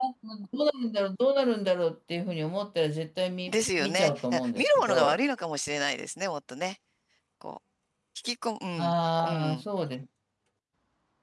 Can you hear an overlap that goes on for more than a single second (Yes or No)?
Yes